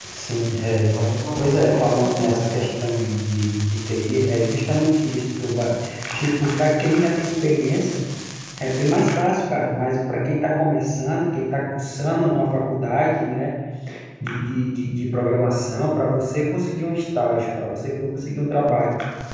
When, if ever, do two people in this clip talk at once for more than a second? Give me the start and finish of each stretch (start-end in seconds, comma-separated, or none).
1.3-2.7